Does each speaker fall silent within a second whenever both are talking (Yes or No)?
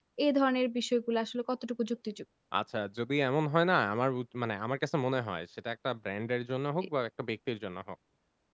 Yes